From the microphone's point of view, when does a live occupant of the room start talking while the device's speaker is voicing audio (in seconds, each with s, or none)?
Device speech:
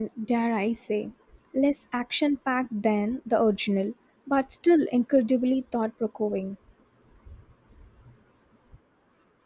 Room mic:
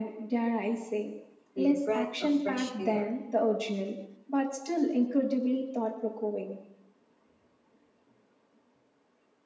1.5 s